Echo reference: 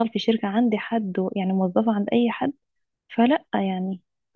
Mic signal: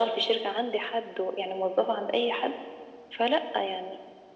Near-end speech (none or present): none